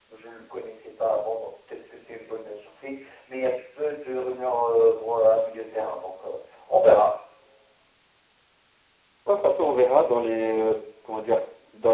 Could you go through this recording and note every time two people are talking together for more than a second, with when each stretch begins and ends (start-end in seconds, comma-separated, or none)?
none